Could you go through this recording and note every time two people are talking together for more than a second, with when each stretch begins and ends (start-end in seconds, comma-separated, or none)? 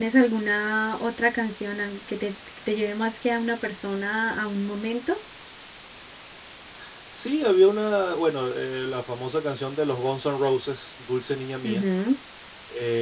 none